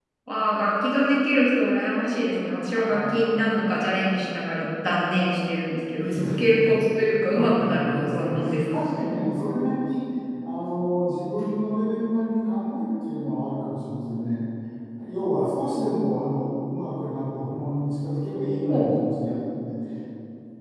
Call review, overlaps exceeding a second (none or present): present